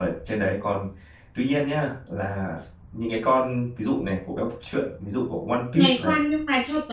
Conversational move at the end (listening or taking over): taking over